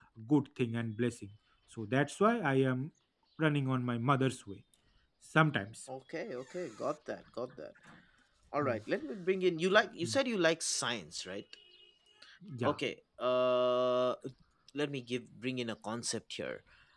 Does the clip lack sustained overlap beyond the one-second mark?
Yes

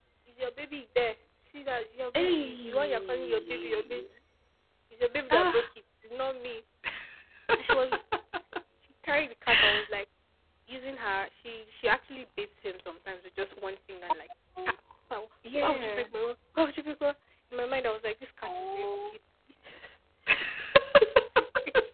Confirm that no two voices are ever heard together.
No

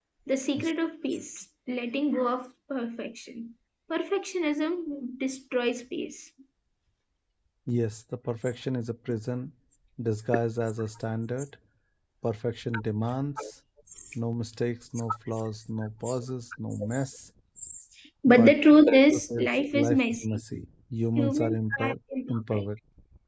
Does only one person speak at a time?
No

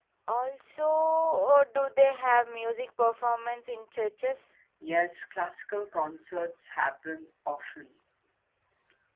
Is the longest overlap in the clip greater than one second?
No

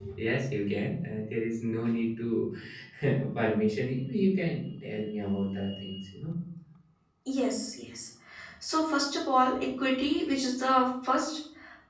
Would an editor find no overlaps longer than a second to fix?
Yes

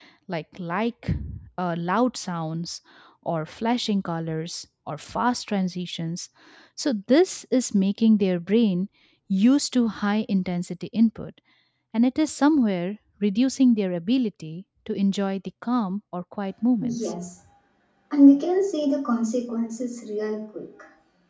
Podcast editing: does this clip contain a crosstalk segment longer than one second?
No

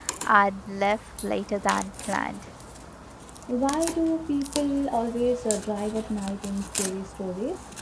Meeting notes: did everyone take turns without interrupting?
Yes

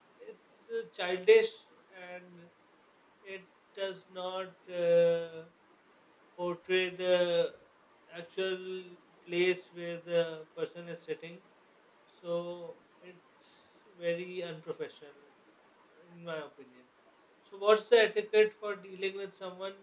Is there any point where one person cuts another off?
No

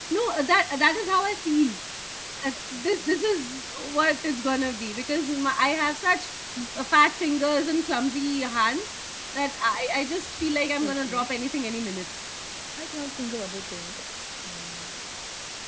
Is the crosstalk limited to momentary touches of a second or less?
Yes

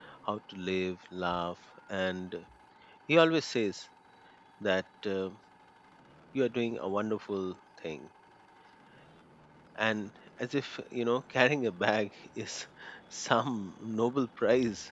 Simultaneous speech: No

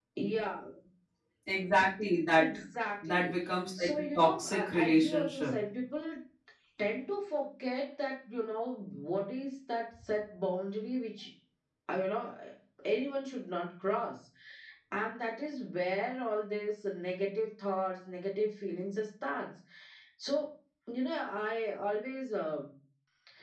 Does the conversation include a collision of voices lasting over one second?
Yes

